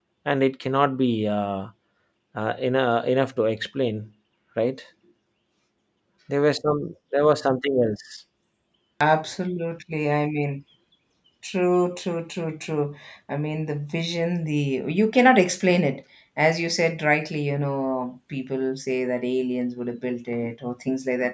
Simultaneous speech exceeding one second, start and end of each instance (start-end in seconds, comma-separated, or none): none